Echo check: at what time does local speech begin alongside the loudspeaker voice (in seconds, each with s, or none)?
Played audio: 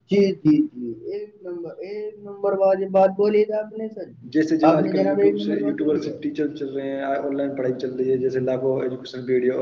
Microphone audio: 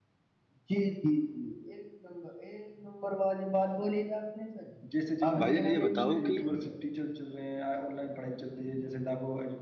5.4 s